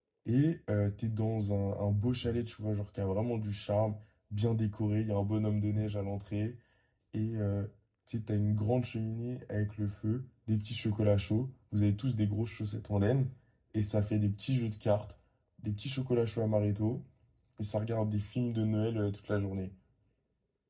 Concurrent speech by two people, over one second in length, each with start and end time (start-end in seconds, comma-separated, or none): none